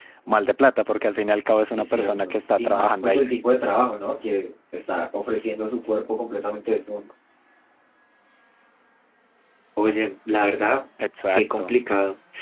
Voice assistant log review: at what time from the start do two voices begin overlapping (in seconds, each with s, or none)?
1.8 s